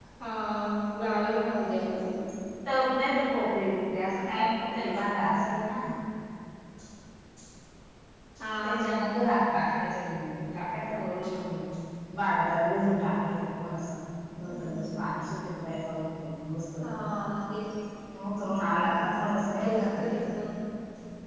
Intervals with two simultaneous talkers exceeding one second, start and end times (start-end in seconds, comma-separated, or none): 18.9-20.1